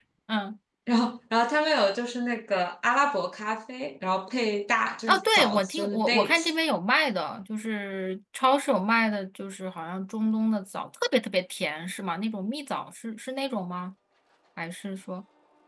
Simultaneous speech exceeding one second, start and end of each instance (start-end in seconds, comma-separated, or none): 5.1-6.5